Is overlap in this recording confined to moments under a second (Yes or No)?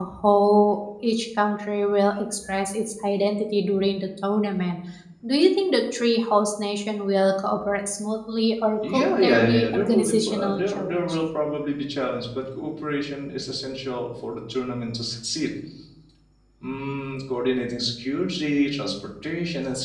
No